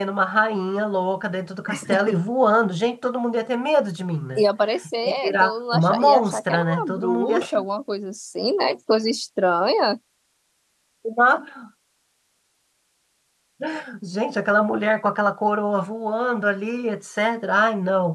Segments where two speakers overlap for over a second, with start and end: 5.0-7.7

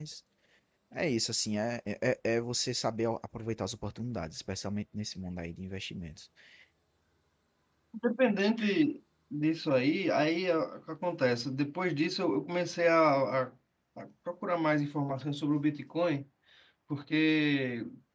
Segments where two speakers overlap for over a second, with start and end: none

